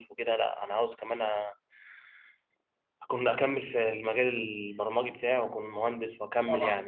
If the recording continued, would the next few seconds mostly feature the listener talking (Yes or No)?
Yes